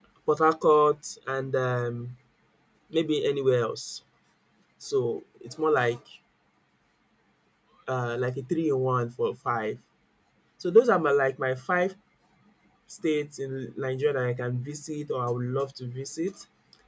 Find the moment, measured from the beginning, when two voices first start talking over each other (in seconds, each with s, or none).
none